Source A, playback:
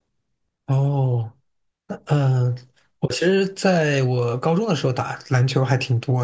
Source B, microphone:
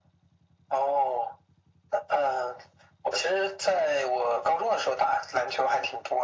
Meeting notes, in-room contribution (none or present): none